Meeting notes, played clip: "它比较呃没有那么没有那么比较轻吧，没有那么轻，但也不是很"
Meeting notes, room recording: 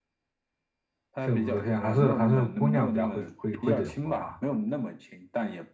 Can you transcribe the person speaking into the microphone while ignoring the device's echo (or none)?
是武则天，还是还是姑娘家会会会整活哈。